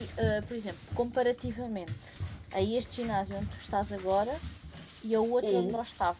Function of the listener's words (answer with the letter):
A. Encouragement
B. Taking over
A